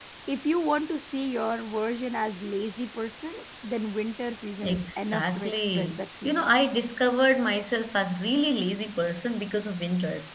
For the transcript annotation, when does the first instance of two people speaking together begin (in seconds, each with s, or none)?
4.6 s